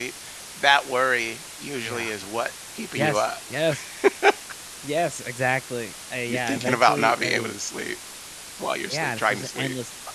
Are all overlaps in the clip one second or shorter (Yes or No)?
No